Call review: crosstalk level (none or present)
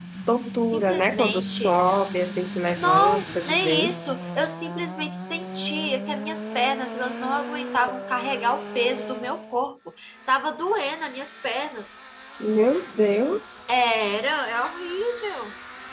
present